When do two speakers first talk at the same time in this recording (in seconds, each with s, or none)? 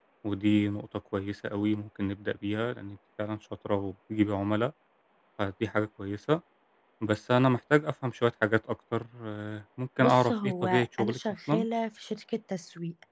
10.0 s